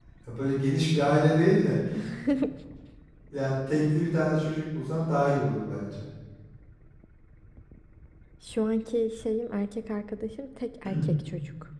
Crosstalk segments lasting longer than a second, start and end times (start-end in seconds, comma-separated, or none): none